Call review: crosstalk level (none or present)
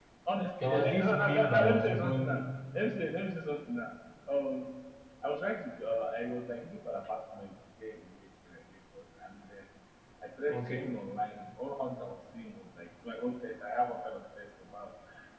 present